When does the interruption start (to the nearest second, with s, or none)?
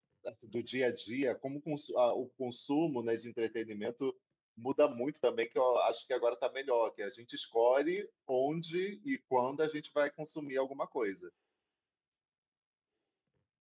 none